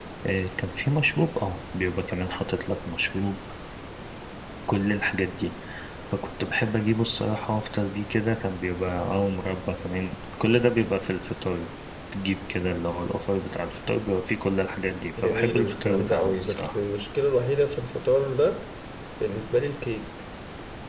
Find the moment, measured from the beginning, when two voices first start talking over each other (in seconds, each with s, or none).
15.2 s